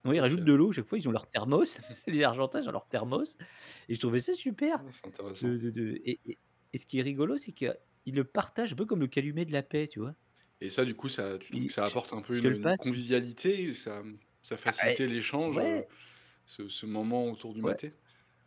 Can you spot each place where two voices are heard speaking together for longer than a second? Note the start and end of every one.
none

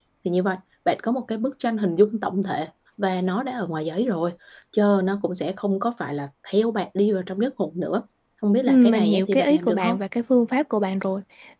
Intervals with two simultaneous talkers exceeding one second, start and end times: 8.7-10.0

